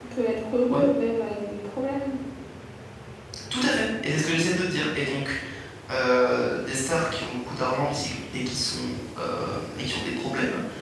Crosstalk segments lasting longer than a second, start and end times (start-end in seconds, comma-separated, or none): none